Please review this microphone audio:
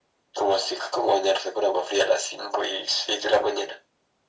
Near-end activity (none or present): none